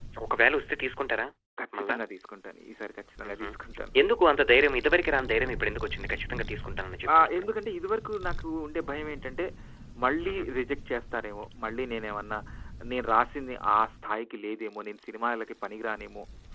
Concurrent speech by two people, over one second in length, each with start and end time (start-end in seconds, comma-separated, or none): none